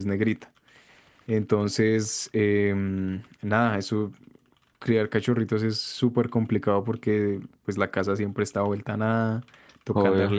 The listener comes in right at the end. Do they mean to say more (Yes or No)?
No